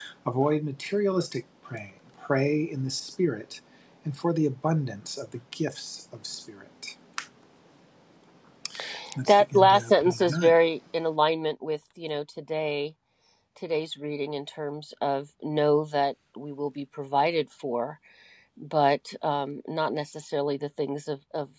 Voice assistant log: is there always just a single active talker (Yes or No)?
No